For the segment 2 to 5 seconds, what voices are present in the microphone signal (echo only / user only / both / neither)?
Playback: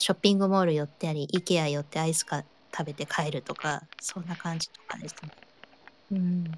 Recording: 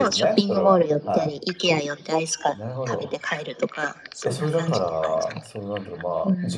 both